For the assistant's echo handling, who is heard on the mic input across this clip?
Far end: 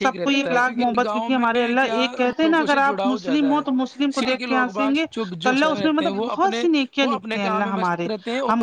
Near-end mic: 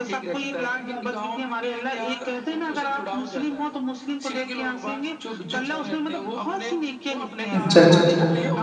both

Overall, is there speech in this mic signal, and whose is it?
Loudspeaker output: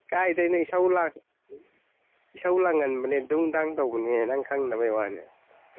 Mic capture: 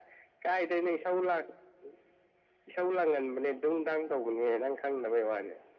echo only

